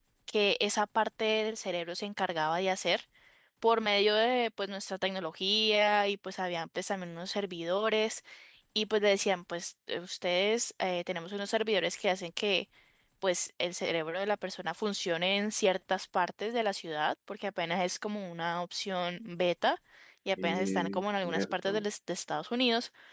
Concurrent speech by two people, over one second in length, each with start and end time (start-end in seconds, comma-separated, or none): 20.4-21.8